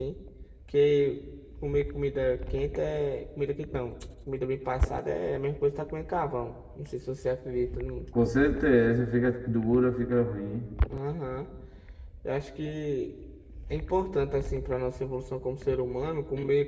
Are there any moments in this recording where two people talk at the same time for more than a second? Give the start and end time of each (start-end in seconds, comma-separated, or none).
none